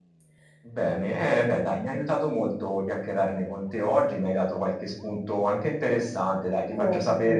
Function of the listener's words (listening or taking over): listening